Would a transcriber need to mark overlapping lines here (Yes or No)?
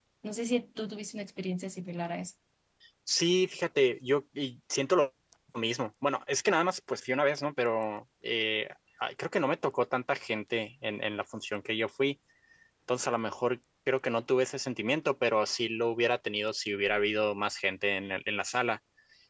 No